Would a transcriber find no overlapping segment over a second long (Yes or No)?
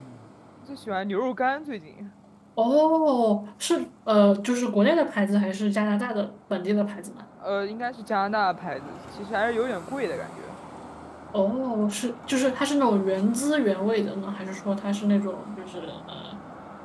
Yes